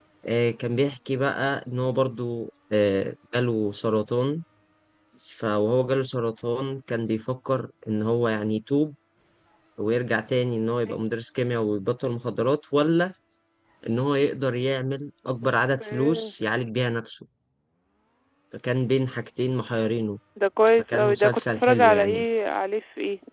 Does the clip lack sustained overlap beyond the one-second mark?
No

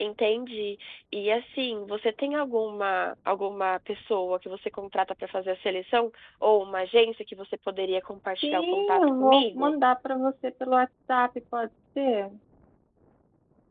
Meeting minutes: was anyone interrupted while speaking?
Yes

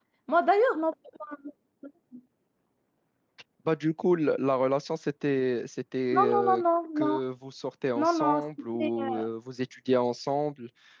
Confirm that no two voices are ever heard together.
No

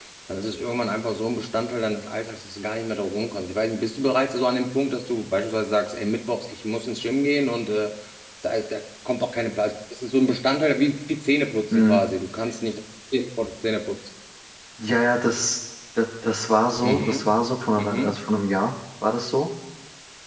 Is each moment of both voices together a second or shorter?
Yes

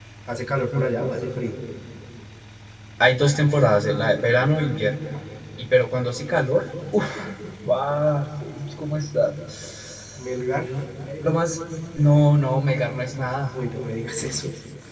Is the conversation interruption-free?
Yes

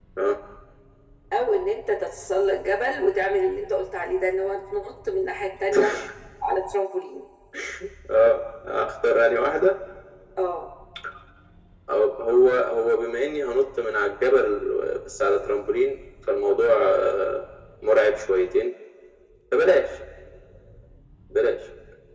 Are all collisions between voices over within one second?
Yes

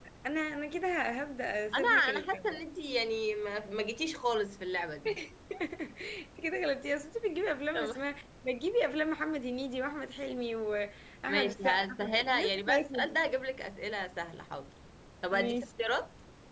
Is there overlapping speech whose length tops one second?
Yes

